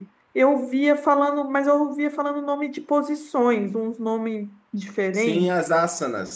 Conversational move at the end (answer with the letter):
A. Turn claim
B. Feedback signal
A